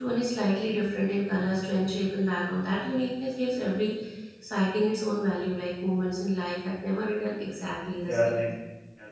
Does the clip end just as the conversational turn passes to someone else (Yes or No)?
Yes